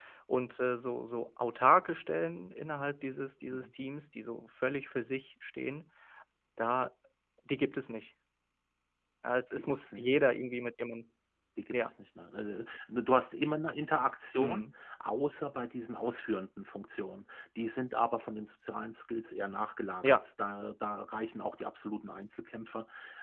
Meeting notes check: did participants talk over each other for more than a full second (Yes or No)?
No